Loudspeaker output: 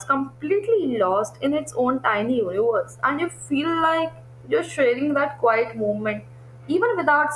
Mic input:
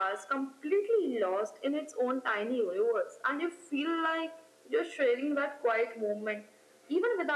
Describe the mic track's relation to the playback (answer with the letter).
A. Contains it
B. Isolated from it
A